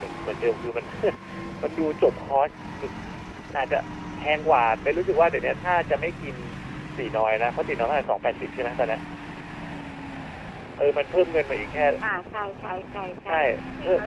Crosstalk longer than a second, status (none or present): none